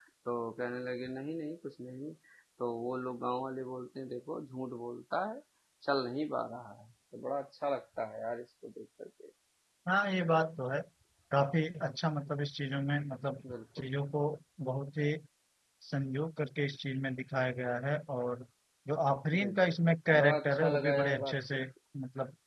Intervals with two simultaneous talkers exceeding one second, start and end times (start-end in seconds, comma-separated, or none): 20.2-21.6